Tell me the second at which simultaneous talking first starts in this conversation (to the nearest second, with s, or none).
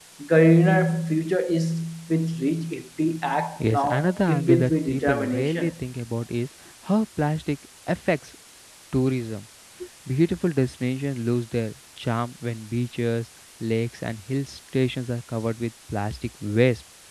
4 s